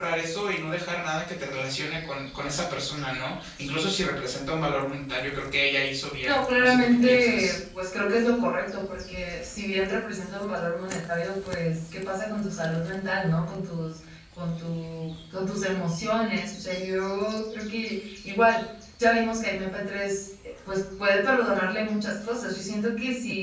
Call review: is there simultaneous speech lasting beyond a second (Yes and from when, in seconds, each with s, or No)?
Yes, from 6.2 s